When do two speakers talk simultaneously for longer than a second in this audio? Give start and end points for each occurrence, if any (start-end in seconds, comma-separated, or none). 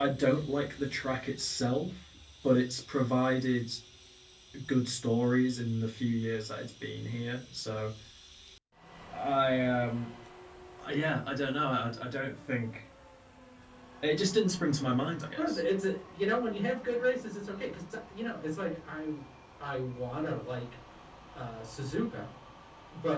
none